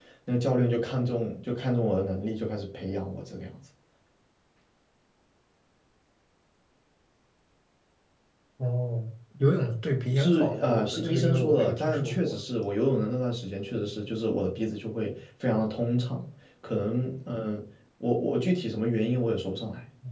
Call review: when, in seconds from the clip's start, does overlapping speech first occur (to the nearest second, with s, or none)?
10 s